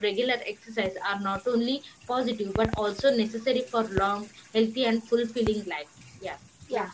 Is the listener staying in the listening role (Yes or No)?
No